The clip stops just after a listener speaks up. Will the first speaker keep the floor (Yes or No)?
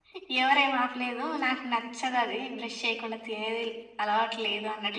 No